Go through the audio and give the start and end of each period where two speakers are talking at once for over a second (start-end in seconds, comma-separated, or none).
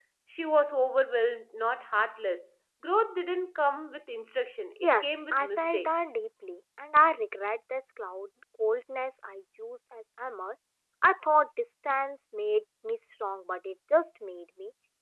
4.8-6.2